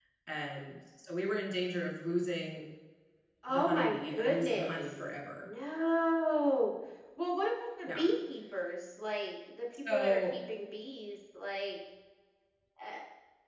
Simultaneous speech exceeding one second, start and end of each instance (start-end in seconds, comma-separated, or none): 3.5-4.9